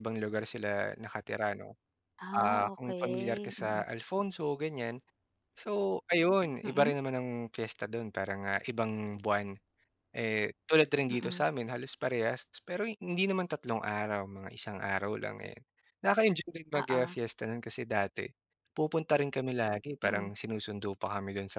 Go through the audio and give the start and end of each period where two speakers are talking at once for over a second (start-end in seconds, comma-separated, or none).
2.3-3.8